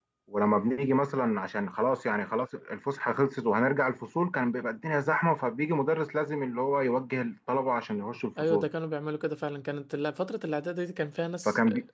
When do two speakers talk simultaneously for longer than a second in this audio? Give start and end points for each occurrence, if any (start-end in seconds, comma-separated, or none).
none